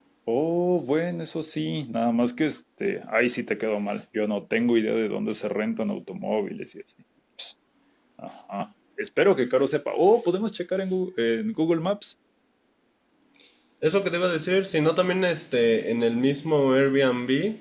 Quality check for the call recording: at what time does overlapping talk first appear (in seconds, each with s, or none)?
none